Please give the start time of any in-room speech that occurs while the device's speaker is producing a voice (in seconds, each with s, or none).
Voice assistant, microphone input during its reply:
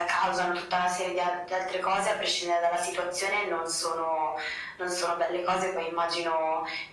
none